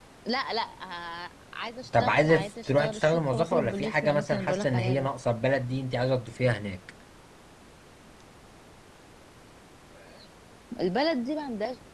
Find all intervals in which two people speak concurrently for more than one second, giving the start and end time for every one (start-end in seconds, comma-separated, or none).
2.0-5.1